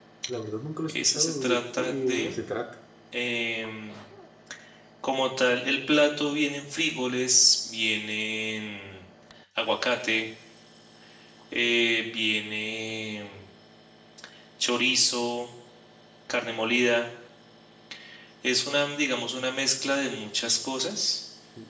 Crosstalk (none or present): present